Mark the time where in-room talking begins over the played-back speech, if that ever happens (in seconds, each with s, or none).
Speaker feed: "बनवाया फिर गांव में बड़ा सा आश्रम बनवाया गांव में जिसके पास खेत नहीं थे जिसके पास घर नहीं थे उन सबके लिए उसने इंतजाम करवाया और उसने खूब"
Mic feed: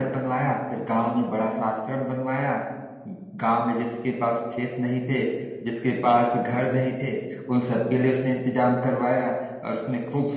none